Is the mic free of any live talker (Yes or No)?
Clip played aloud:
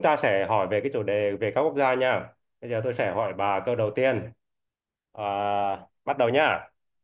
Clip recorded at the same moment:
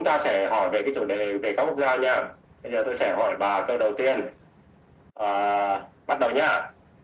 Yes